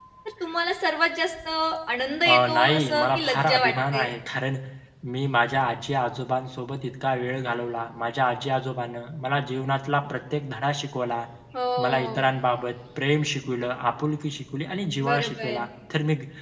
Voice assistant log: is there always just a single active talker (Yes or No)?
No